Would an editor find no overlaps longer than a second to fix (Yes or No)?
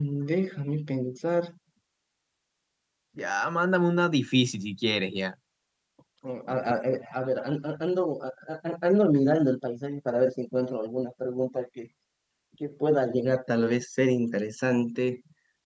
Yes